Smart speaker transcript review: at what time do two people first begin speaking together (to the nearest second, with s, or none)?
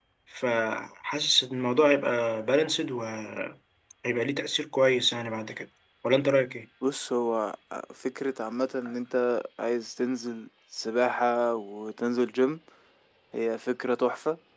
none